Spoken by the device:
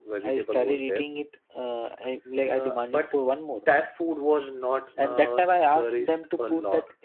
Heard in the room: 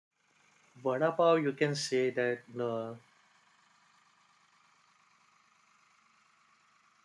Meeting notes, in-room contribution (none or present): present